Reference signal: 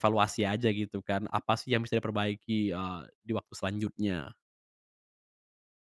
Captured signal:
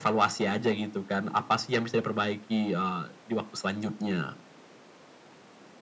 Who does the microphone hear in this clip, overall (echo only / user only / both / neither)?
echo only